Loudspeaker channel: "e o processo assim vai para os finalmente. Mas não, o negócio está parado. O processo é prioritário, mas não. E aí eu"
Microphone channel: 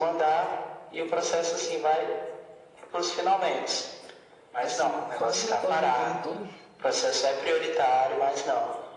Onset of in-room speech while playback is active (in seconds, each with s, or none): 4.6 s